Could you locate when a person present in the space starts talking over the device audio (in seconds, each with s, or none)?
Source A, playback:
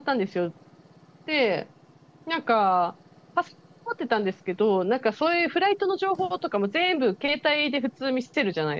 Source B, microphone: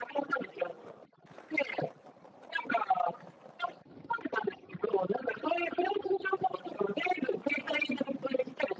none